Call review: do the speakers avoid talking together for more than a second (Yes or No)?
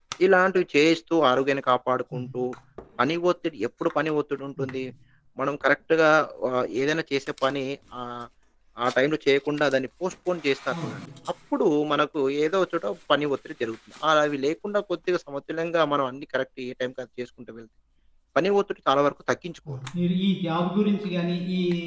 Yes